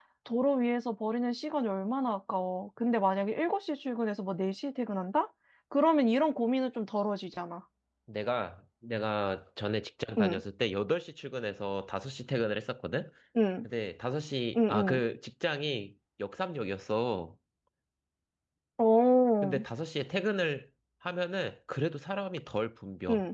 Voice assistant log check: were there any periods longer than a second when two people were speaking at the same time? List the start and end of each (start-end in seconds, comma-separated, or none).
none